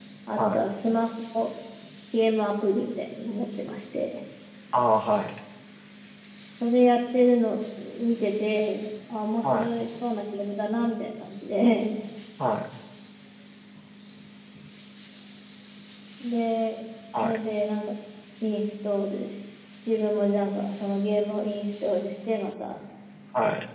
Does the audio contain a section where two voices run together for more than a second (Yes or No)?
No